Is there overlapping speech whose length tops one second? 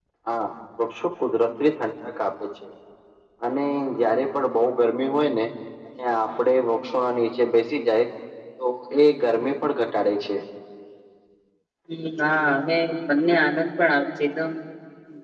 No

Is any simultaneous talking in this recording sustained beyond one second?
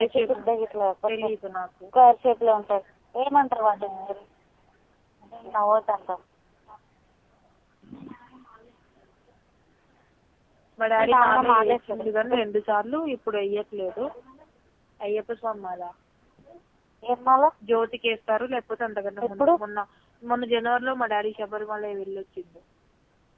Yes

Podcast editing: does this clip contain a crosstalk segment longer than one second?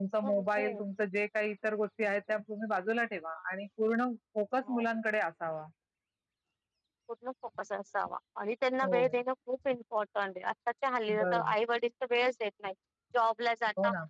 No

